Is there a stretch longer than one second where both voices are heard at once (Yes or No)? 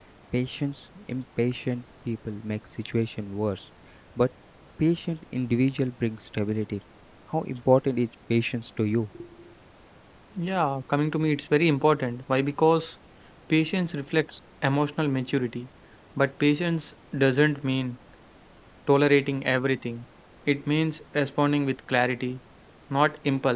No